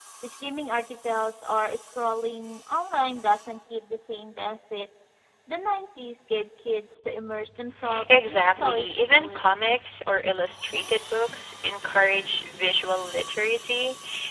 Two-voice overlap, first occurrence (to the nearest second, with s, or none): 8 s